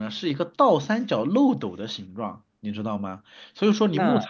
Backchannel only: Yes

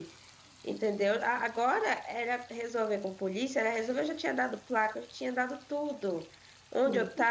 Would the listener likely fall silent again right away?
Yes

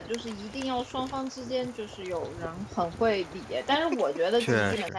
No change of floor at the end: Yes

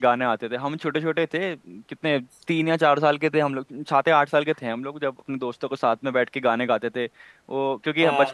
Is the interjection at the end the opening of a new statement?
No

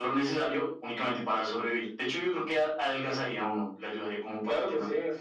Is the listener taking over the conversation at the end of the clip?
Yes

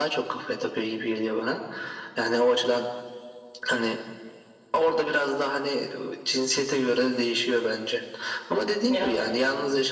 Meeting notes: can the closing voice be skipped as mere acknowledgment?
Yes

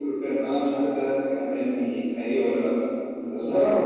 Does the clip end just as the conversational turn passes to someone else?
Yes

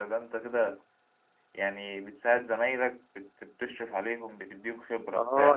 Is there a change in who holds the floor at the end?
Yes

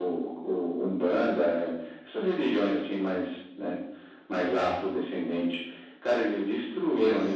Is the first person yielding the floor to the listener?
No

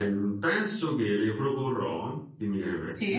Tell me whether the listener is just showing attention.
Yes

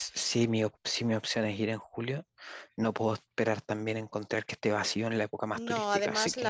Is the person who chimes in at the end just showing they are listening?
No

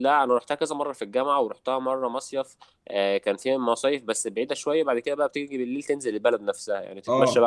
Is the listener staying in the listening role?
Yes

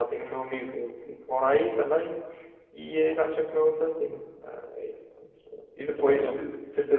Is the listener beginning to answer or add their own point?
No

